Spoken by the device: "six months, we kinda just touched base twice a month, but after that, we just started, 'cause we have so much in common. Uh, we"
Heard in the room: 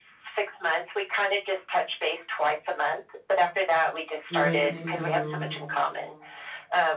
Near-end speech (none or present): present